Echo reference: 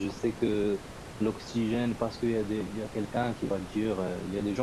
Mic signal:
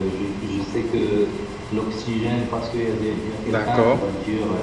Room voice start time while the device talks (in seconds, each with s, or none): 3.4 s